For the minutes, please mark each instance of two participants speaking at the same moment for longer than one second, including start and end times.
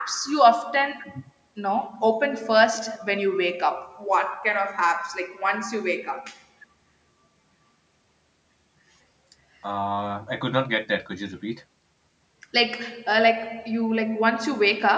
none

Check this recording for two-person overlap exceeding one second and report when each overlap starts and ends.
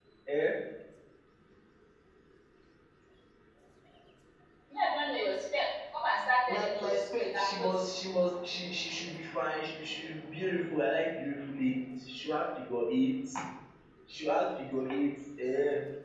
6.5-7.8

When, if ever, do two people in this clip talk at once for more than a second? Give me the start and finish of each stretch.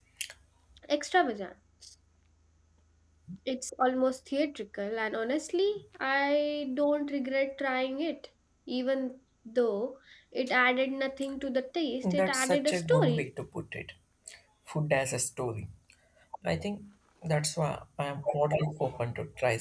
12.0-13.3

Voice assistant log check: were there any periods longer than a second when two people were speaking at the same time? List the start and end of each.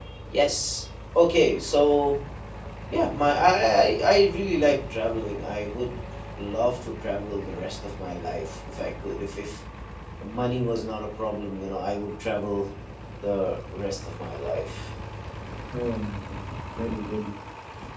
none

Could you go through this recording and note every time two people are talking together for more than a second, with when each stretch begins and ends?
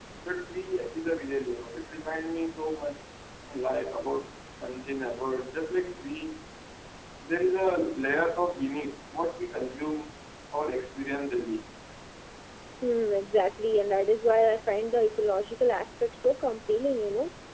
none

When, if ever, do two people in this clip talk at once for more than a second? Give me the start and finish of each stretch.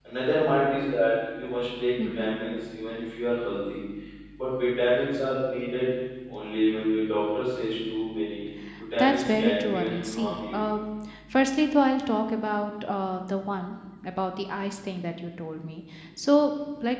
9.0-10.6

